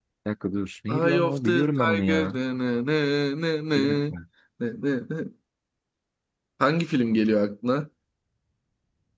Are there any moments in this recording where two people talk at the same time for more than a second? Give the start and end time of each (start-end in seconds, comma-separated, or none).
0.9-2.4